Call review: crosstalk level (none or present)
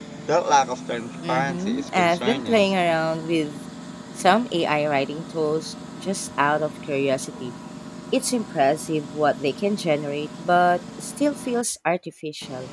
present